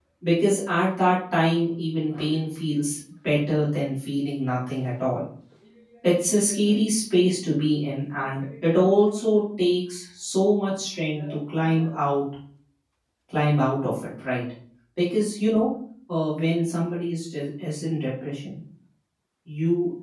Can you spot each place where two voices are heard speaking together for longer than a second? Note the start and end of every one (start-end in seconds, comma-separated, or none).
none